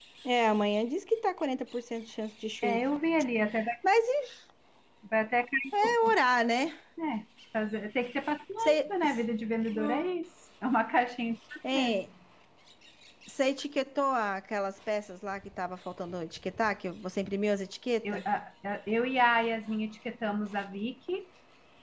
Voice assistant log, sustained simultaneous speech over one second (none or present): none